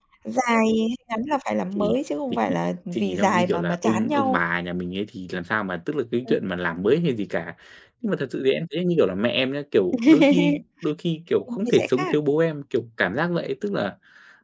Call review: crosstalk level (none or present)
present